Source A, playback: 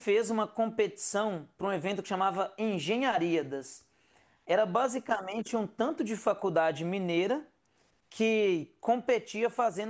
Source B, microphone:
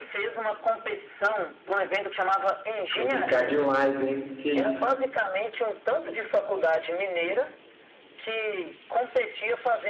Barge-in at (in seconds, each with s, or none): 2.9 s